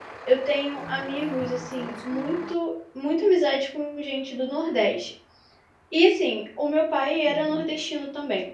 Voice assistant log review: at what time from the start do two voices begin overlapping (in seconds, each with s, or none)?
0.8 s